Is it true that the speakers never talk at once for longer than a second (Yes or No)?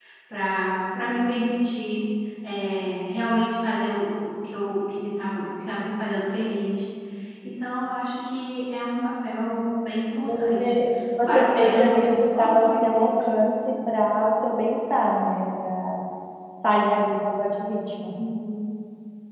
No